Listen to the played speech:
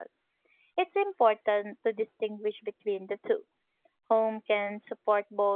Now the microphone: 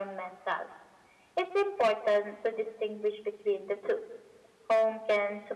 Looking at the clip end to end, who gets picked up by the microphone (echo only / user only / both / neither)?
echo only